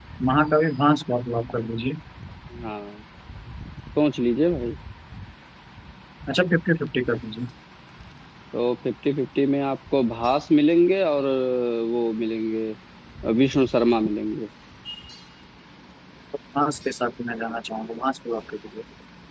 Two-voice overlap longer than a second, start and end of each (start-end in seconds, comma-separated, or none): none